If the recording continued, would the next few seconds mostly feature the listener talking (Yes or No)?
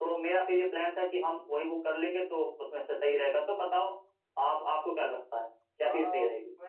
Yes